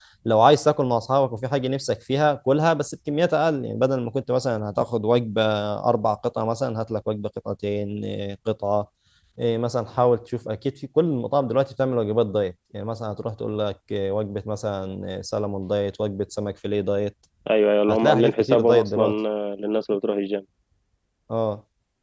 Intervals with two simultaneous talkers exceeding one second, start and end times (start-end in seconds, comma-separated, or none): 17.9-19.1